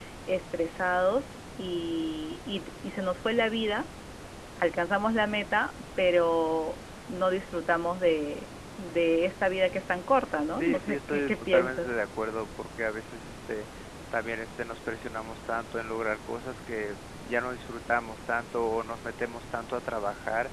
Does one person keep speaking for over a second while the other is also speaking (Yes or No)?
Yes